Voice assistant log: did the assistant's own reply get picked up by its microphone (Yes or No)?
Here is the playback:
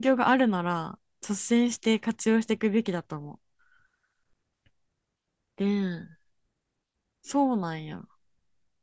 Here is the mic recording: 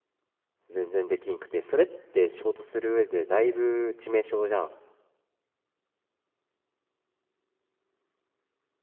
No